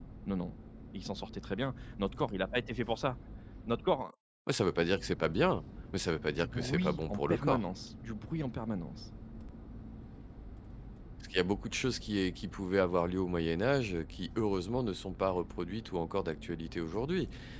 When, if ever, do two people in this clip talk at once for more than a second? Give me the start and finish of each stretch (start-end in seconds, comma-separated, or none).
6.3-7.6